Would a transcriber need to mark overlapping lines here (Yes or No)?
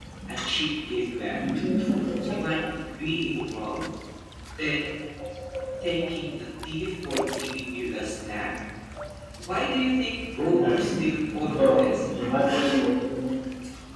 Yes